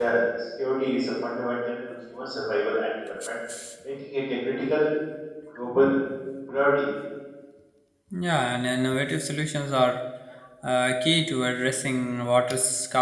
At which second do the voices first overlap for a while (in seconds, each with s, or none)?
none